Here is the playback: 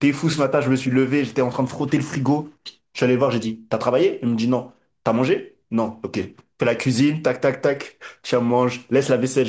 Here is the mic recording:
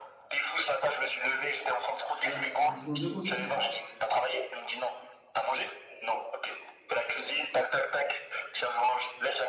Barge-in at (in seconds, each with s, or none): 2.2 s